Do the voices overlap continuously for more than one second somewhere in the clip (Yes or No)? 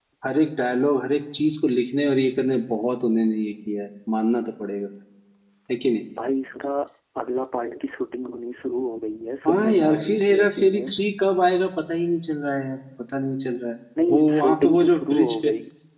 Yes